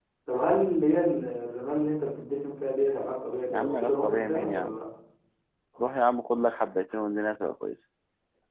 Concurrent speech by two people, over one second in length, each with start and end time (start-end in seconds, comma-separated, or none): 3.5-4.8